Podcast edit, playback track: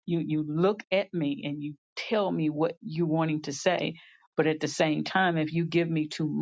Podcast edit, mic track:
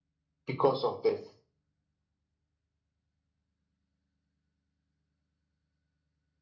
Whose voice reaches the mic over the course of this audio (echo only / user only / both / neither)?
user only